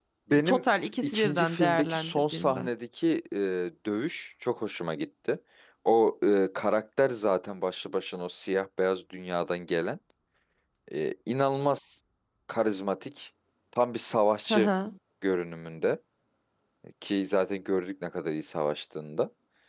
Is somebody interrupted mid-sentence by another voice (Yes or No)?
Yes